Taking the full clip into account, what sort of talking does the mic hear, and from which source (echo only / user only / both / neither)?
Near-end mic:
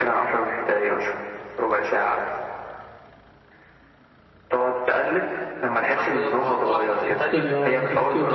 both